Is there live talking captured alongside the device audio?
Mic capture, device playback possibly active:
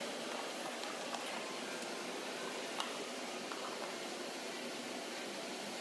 No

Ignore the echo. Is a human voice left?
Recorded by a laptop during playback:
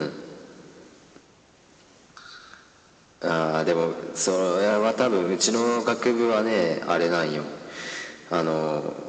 No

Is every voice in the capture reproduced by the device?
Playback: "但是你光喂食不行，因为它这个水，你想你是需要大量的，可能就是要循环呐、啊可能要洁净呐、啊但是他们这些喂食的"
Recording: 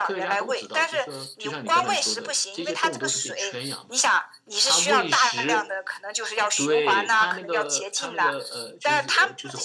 No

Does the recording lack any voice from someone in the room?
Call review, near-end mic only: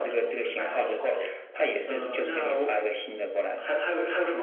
Yes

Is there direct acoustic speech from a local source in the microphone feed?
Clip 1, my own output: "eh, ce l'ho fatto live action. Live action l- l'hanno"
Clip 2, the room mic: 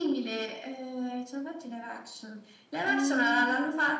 Yes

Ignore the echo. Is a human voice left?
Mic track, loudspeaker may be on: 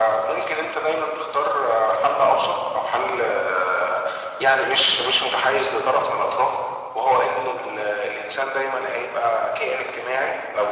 No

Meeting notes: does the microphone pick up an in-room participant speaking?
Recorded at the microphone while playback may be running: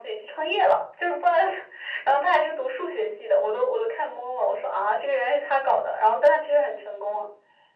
No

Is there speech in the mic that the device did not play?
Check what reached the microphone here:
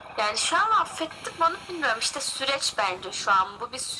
No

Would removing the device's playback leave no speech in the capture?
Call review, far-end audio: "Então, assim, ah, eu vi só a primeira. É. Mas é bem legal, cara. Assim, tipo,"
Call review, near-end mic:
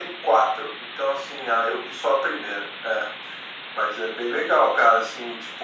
Yes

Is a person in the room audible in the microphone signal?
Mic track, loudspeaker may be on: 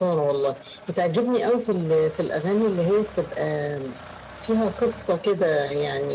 No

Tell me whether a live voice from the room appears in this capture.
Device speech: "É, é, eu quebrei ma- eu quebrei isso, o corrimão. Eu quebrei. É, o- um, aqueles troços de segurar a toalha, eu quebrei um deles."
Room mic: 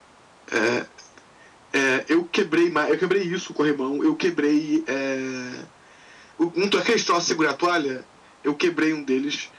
No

